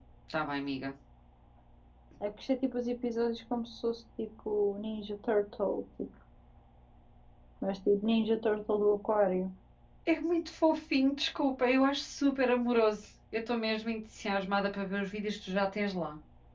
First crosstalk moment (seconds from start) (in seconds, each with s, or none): none